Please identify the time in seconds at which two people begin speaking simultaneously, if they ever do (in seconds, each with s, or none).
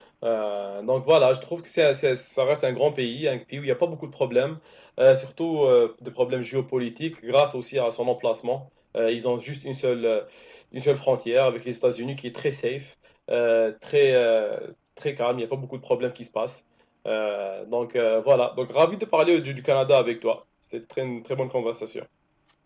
none